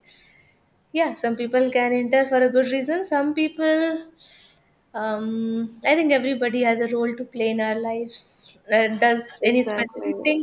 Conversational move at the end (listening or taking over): listening